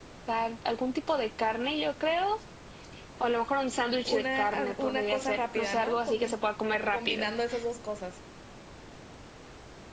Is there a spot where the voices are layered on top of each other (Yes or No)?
Yes